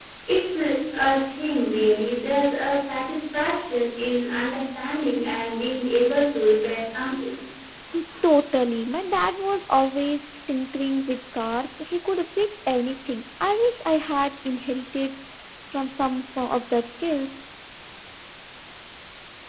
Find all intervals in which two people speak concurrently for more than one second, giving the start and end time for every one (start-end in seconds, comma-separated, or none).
none